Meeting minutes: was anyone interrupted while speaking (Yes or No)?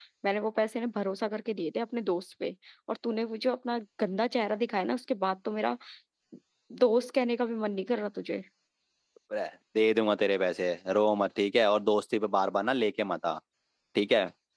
No